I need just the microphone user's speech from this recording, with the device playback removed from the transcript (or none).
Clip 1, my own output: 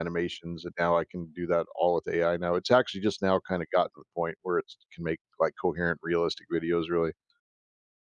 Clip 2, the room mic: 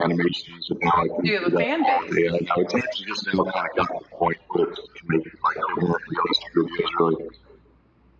Do you have a fan base?